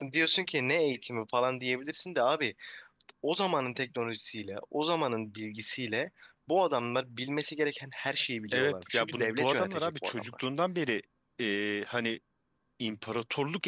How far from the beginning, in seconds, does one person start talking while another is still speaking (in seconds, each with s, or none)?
8.5 s